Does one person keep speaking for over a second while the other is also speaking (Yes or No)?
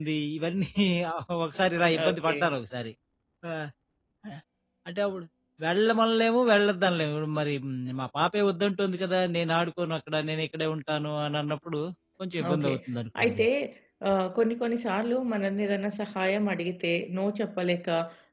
No